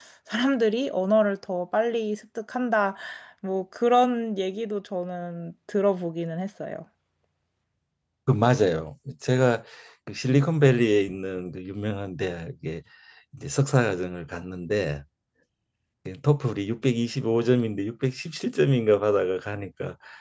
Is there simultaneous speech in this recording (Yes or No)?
No